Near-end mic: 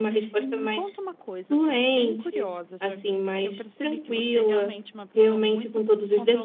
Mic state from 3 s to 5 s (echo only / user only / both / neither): both